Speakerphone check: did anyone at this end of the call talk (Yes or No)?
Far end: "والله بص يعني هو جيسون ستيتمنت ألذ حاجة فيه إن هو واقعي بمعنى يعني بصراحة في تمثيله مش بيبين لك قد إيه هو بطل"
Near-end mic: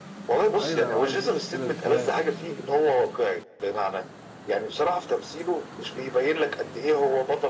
Yes